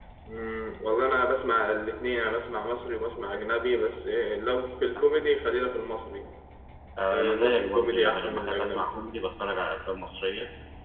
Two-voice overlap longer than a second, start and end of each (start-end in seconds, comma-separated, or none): 7.1-8.9